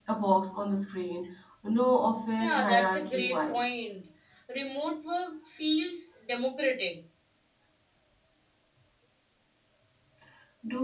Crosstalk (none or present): present